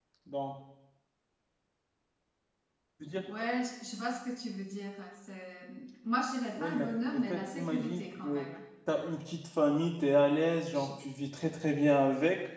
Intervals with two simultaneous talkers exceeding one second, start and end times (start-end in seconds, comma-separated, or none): 6.5-8.5